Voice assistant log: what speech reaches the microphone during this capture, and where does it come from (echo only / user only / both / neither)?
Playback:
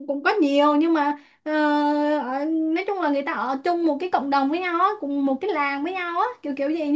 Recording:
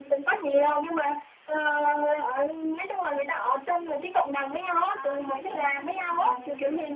both